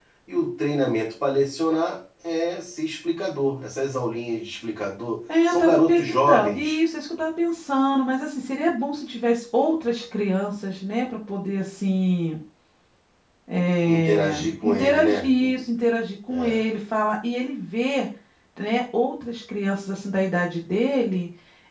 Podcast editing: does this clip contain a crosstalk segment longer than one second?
Yes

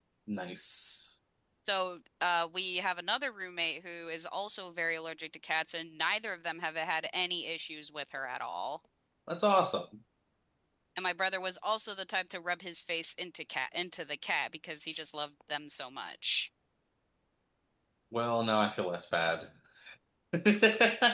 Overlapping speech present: No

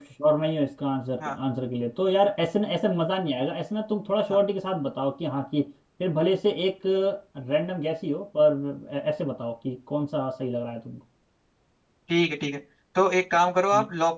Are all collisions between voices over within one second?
Yes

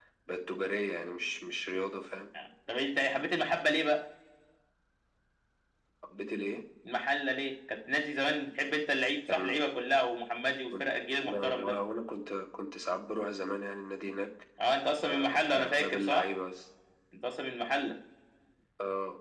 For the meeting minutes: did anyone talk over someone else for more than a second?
Yes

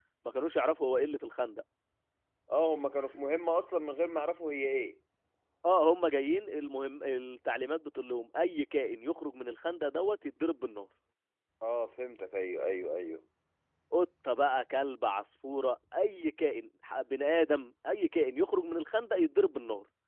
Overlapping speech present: No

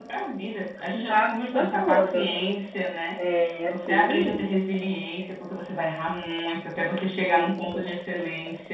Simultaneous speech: Yes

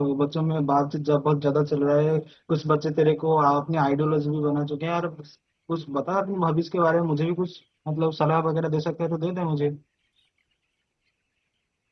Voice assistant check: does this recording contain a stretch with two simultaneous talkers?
No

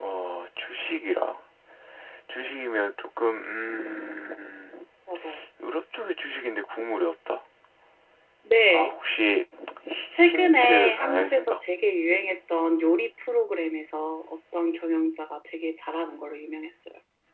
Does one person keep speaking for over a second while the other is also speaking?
Yes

